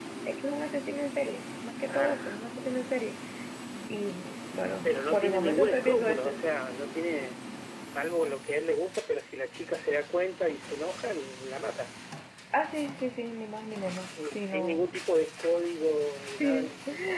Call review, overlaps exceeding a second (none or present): present